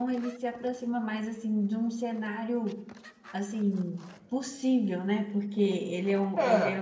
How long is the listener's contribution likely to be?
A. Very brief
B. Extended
A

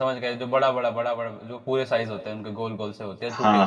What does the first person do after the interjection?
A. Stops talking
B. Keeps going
A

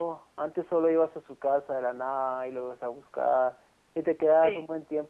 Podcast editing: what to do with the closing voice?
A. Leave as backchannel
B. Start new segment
A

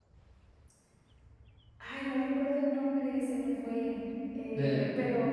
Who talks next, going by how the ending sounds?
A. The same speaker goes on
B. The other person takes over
A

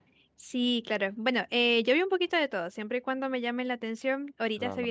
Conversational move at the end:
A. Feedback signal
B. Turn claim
A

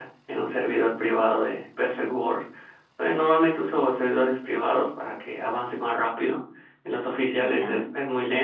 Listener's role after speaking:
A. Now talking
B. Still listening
B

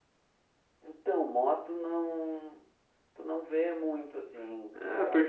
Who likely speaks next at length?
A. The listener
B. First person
A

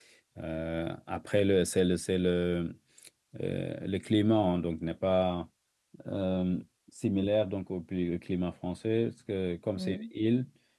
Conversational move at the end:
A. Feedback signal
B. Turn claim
A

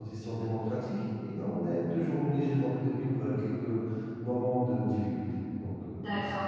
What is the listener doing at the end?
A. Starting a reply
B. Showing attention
A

